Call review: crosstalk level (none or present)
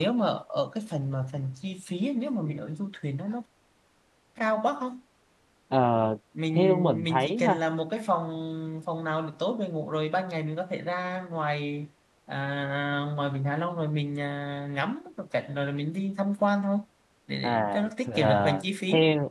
present